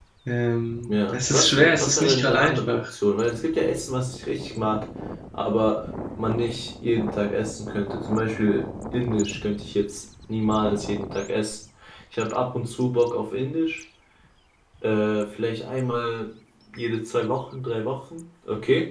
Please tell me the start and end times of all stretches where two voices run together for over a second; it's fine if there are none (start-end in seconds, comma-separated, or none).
0.9-2.8